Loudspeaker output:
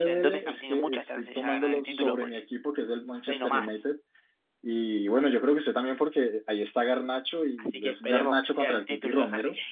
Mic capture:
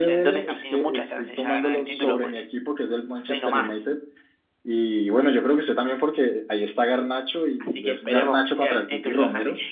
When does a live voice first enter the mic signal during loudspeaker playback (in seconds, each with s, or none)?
none